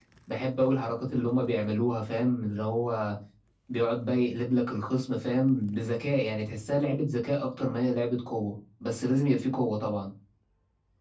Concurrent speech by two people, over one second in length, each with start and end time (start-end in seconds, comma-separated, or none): none